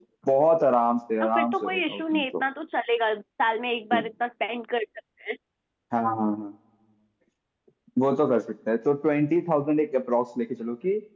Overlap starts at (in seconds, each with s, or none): 1.2 s